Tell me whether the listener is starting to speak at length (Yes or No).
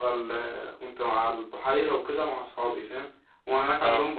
No